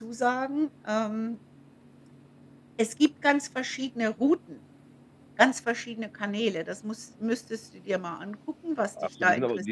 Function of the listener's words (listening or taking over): taking over